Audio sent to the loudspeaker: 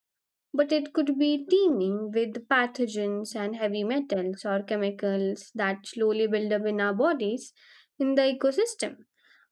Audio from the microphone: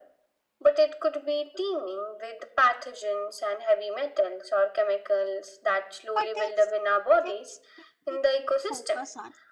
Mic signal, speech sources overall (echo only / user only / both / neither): both